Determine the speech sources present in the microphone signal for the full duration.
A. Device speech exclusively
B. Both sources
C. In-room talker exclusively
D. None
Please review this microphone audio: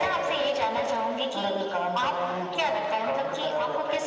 A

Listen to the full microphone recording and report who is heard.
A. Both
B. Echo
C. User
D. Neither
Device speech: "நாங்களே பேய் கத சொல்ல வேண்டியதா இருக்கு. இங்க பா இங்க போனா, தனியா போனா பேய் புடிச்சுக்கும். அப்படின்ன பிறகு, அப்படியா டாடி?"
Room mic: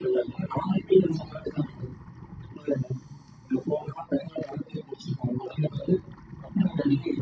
B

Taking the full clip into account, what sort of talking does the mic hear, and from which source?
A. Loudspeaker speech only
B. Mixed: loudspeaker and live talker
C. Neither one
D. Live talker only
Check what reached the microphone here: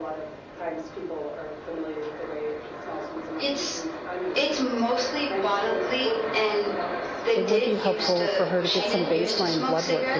B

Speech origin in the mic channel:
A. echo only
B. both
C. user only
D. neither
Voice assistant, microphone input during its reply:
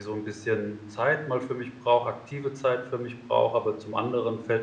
C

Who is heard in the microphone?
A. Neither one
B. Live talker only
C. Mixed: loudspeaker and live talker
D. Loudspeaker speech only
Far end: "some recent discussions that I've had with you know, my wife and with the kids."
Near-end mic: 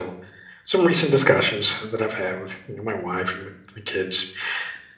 D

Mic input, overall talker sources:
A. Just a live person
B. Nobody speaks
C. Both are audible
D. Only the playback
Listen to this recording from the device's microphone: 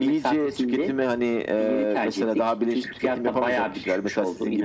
D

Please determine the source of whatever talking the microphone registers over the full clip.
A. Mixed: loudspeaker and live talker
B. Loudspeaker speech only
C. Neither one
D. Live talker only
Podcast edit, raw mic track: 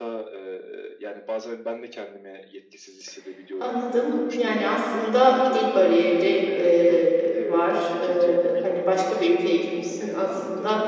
A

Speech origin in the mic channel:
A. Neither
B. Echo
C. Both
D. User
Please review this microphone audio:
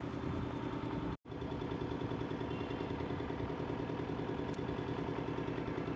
A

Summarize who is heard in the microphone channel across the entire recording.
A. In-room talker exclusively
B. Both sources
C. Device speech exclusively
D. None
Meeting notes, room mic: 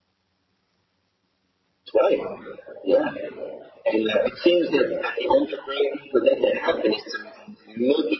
C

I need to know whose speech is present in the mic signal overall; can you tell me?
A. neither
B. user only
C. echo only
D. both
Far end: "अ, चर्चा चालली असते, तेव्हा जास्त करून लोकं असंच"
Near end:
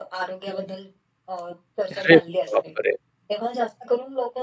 D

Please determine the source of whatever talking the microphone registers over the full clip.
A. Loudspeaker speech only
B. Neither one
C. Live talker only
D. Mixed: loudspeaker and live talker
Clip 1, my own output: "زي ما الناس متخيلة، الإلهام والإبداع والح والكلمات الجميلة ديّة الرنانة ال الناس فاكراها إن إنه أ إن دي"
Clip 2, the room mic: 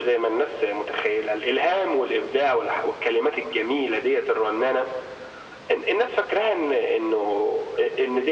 A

